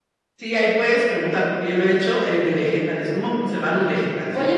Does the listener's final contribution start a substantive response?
Yes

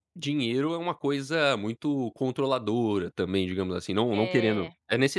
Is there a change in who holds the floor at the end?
No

